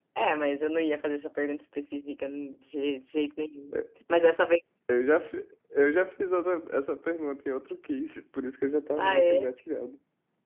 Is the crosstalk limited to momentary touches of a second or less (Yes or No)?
Yes